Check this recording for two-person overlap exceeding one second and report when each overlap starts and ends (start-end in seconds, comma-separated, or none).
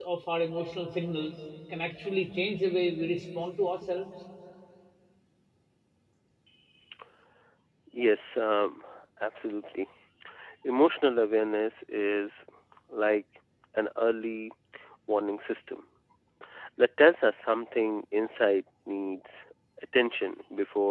none